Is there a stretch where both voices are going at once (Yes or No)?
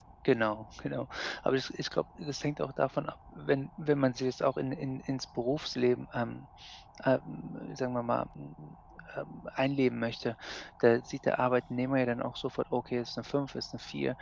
No